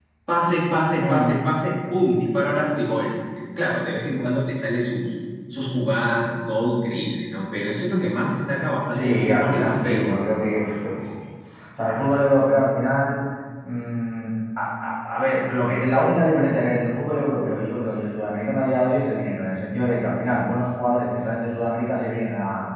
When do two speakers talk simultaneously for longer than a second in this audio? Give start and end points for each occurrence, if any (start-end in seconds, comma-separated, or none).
8.9-10.1